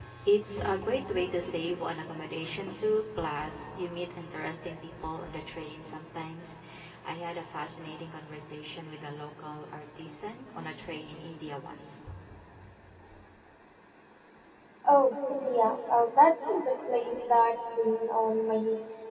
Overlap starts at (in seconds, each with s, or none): none